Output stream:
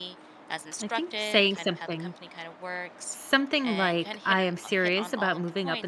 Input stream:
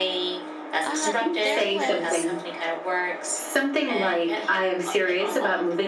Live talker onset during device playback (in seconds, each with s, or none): 0.8 s